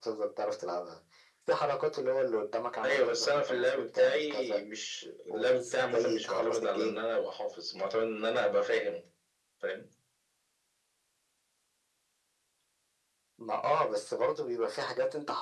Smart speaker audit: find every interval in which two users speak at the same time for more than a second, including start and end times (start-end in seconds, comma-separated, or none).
2.8-4.6, 5.3-7.0